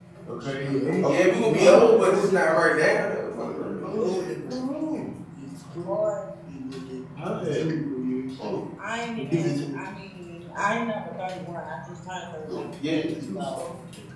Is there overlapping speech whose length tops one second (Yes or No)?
Yes